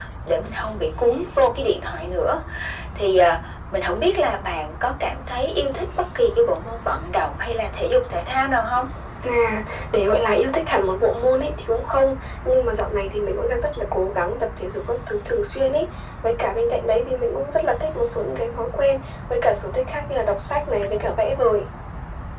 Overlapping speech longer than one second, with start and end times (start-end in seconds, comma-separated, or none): none